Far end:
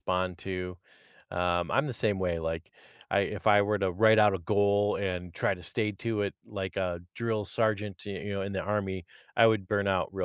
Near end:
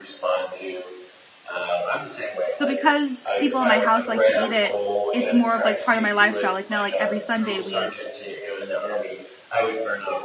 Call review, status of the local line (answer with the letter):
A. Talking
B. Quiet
A